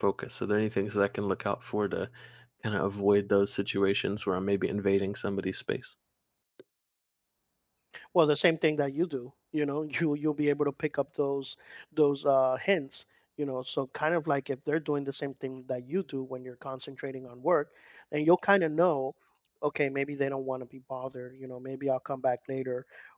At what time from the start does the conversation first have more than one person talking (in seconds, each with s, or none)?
none